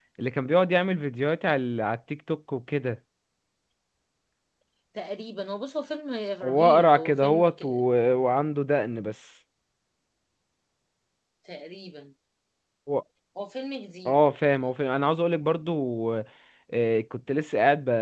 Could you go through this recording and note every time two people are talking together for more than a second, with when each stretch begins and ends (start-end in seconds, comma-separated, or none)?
6.4-7.7